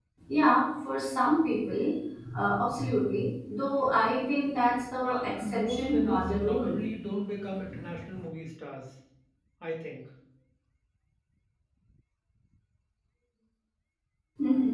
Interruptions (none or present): present